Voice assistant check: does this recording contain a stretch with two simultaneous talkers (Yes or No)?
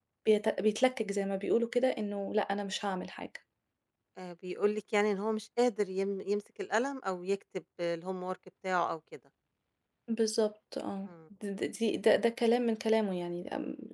No